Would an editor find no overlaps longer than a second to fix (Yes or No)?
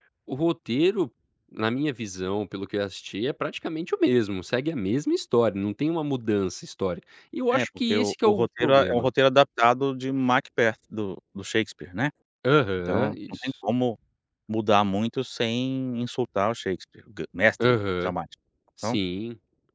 No